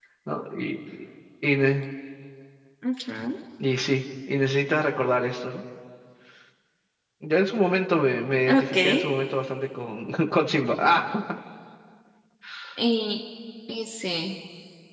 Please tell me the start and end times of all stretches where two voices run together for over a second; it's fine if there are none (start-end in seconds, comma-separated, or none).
none